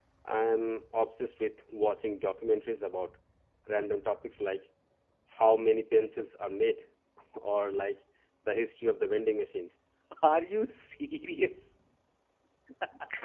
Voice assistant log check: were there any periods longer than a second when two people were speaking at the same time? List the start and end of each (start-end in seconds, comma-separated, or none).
none